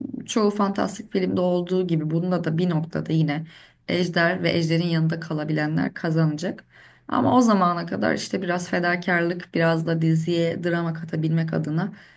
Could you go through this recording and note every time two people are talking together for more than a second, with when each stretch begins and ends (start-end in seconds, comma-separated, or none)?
none